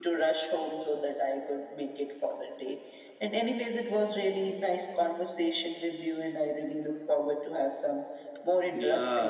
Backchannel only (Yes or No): No